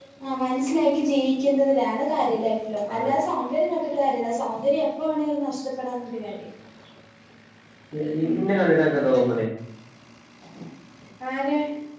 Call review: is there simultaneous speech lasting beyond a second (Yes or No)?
No